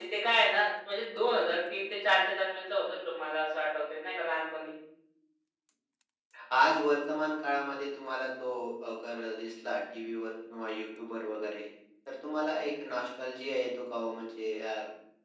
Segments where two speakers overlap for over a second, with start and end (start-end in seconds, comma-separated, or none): none